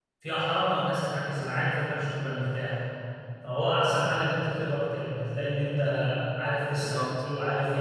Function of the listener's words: listening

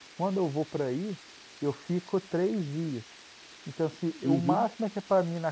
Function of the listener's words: listening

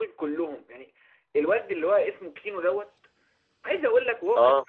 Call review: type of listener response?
listening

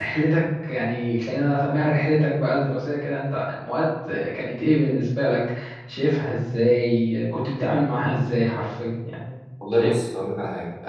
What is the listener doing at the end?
taking over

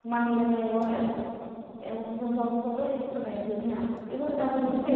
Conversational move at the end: taking over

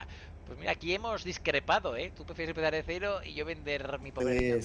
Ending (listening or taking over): taking over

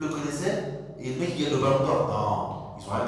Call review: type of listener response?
taking over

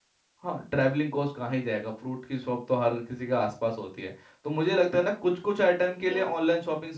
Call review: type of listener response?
listening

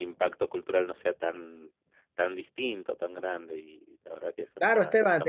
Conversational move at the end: taking over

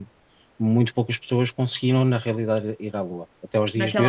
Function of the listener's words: taking over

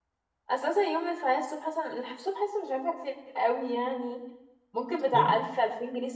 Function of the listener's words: listening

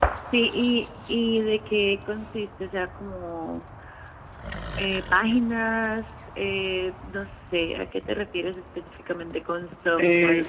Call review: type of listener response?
taking over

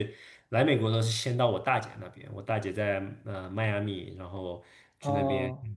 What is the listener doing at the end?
listening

